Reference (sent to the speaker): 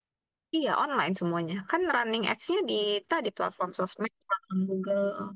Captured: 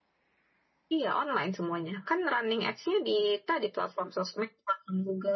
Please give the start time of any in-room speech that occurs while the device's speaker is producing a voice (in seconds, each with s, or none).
none